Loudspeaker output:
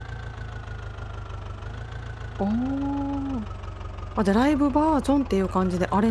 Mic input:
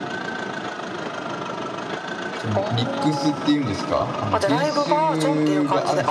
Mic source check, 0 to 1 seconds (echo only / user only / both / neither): neither